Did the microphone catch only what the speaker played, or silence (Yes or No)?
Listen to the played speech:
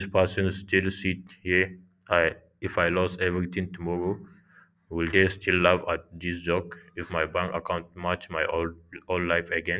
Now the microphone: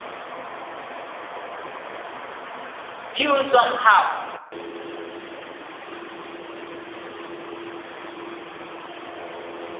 No